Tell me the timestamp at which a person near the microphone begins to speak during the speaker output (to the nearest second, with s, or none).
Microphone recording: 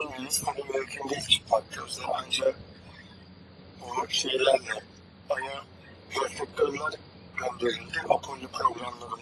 none